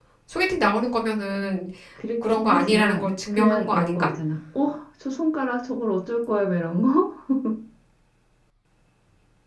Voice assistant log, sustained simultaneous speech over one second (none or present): present